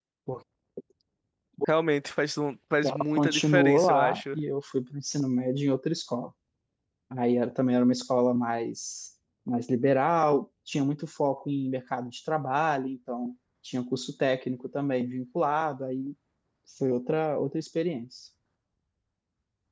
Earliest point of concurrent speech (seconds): 2.8 s

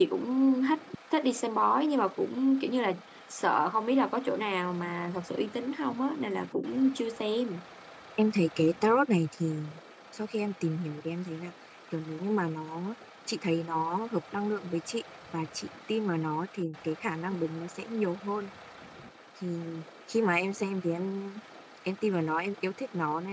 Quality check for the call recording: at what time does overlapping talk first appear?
none

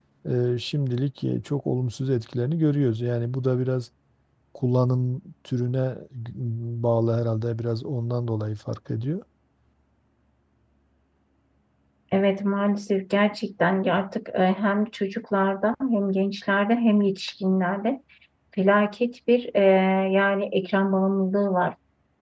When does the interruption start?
none

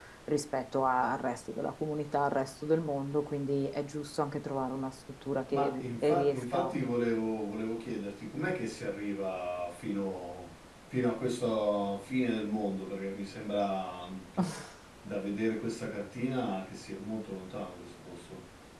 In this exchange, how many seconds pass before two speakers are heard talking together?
5.5 s

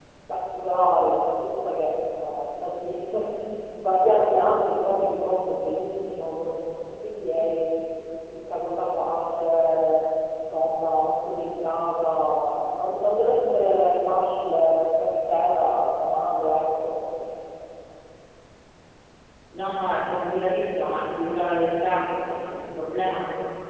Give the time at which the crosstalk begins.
none

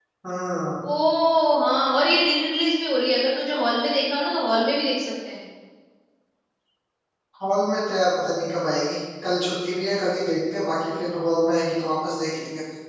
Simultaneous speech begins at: none

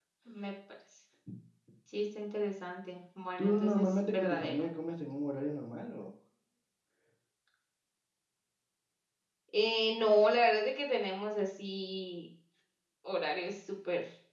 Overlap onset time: 3.4 s

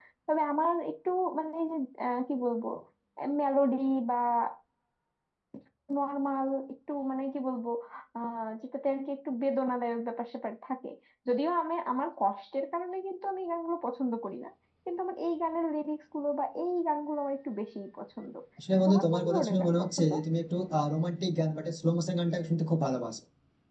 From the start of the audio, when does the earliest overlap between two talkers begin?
18.9 s

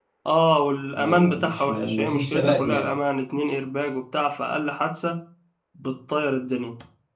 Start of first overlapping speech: 0.9 s

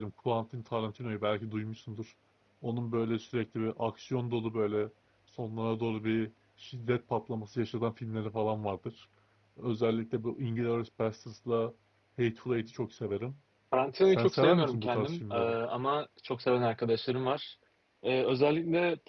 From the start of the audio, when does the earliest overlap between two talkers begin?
14.1 s

